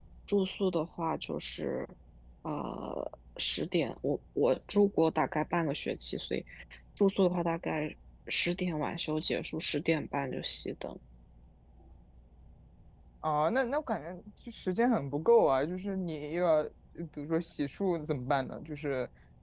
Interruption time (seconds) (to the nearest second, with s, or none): none